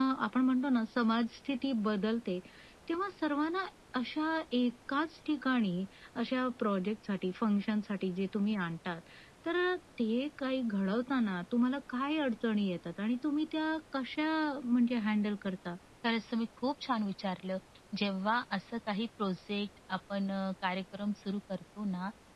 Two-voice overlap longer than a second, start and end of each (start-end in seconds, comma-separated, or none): none